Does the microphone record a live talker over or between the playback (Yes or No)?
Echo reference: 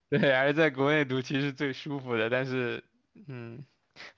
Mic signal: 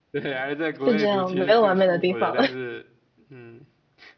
Yes